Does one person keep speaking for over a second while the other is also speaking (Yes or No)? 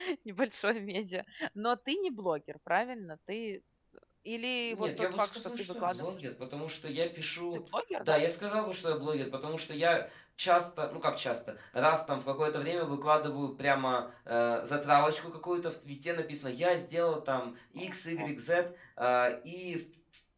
Yes